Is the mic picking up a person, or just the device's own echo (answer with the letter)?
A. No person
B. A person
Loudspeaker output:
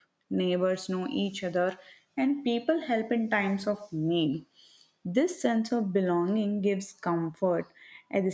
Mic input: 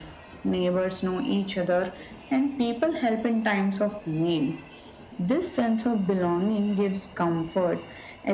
A